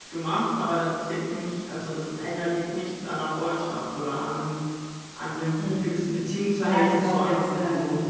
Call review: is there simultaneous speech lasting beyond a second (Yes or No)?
Yes